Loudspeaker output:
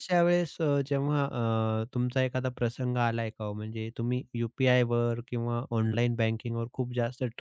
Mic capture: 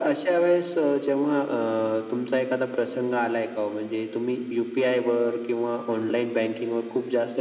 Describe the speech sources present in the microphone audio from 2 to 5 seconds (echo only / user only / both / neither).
echo only